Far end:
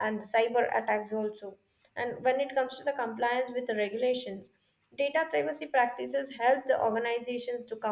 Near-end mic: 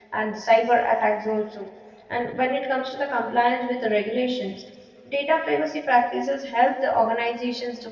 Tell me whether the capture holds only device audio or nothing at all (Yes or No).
Yes